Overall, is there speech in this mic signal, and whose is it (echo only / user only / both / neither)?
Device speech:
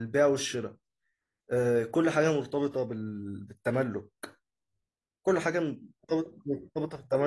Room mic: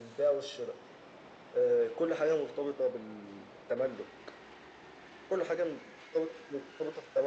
echo only